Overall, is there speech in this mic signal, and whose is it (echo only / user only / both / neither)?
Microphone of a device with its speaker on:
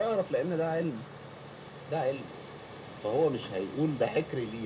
echo only